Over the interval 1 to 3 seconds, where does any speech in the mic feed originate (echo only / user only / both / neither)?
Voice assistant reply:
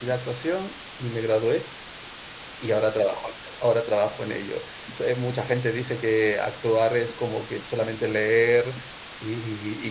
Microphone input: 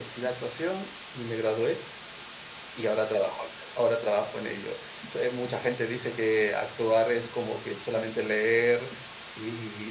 echo only